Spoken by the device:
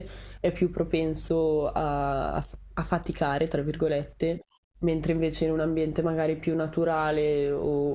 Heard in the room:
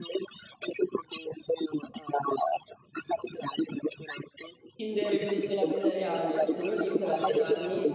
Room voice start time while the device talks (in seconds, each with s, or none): 4.7 s